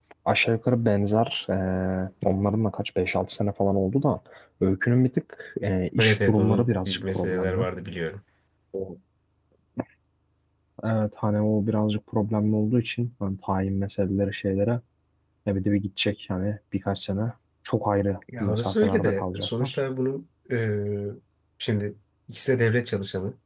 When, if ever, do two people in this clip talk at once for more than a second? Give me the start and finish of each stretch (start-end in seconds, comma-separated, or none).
6.0-7.6, 18.4-19.8